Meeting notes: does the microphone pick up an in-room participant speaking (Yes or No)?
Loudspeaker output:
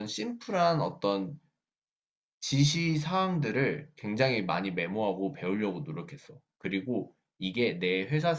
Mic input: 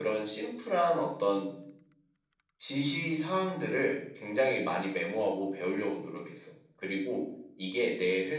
No